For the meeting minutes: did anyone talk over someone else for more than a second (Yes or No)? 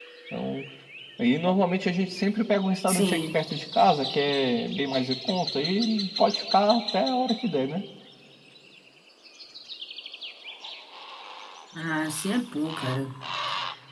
No